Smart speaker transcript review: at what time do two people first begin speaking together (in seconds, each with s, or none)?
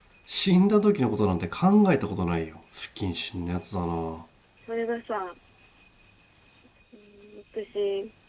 none